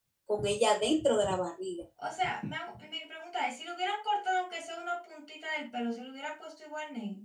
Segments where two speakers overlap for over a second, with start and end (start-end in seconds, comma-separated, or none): none